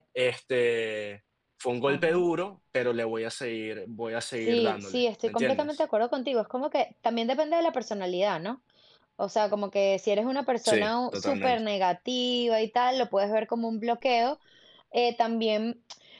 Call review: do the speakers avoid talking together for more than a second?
No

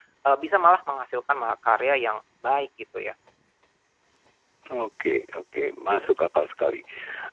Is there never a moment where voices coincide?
Yes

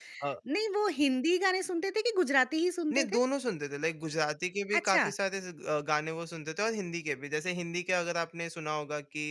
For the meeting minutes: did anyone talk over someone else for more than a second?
No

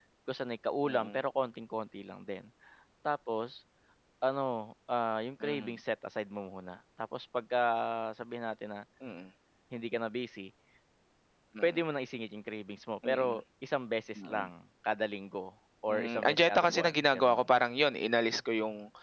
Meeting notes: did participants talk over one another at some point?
Yes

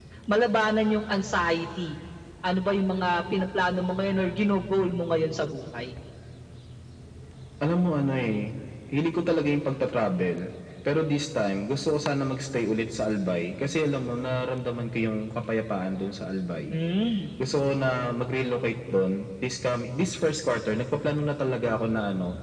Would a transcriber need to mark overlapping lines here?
No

